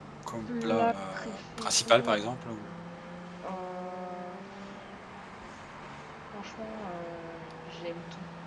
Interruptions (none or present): present